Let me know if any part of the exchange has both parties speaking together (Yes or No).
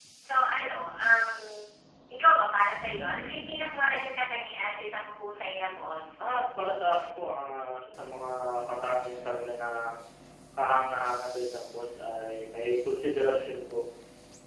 No